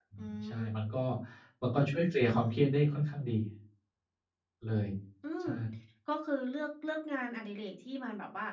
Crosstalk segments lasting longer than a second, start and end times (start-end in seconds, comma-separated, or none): none